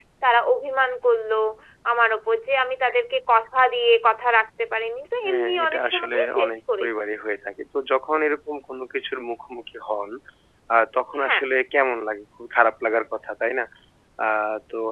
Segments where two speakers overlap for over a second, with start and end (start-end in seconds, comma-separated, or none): 5.2-6.9